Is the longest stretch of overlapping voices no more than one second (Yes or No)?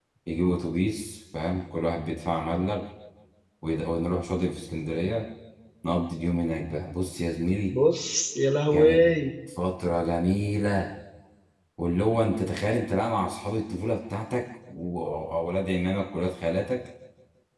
Yes